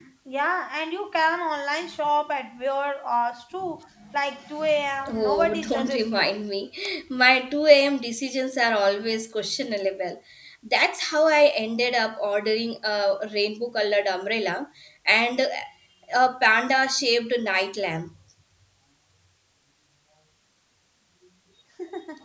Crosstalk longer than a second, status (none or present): present